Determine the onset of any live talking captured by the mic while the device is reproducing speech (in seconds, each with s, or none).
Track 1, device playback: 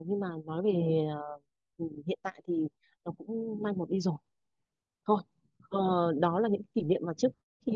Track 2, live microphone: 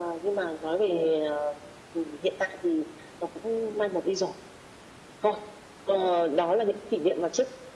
none